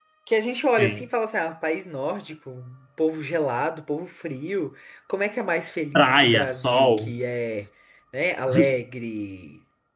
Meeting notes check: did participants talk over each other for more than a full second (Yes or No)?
Yes